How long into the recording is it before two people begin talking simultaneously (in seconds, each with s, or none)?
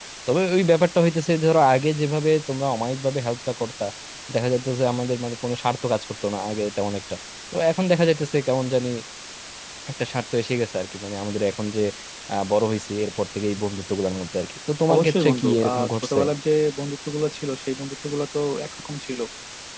14.9 s